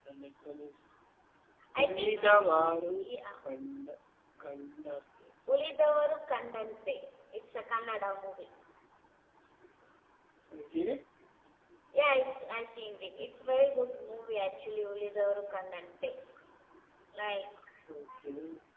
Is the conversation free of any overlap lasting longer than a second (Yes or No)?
No